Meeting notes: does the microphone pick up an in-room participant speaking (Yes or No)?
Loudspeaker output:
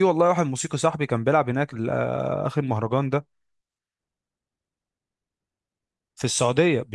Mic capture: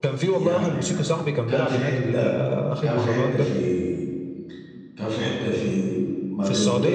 Yes